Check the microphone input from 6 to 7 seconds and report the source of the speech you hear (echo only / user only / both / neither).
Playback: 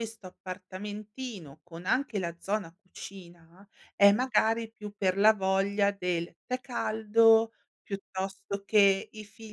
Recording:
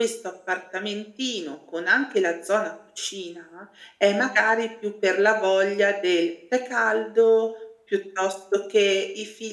echo only